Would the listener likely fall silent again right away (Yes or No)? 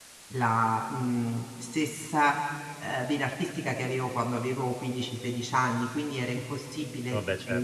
Yes